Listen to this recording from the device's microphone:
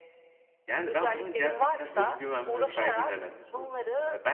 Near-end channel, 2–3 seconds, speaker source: both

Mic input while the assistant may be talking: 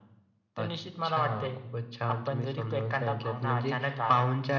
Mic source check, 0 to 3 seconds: echo only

